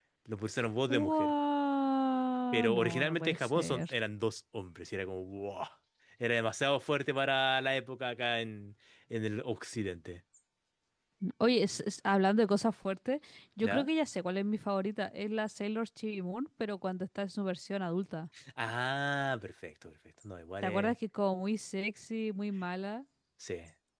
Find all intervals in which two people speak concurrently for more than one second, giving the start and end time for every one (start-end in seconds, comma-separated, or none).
2.5-3.9